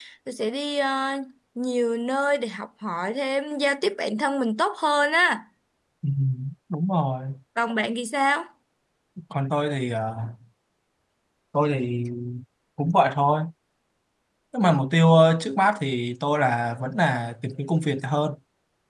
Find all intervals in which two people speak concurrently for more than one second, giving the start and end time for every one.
none

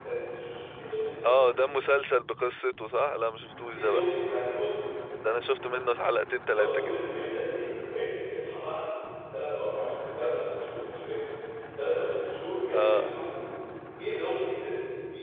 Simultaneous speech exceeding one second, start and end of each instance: none

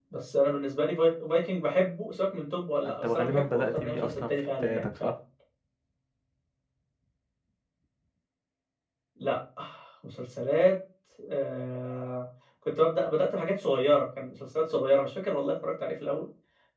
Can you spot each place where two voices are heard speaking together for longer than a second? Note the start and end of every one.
2.8-5.1

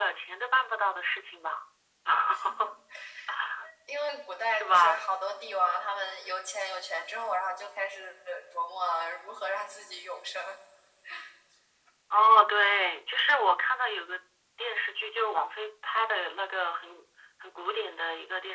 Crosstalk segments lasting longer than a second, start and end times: none

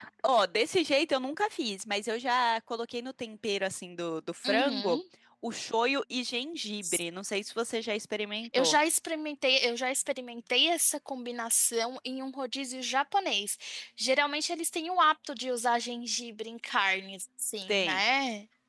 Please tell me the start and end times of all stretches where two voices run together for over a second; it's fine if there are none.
none

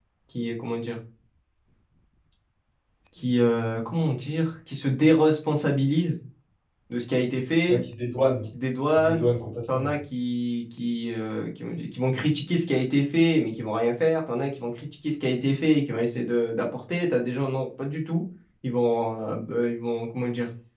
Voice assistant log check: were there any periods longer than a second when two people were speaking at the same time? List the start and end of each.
none

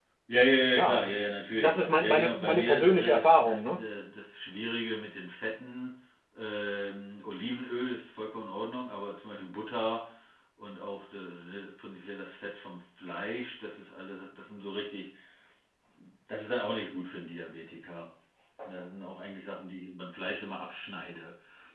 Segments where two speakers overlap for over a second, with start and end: 1.5-3.8

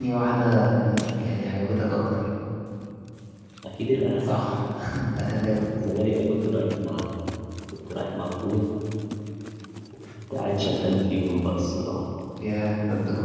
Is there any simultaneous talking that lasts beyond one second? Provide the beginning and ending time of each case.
none

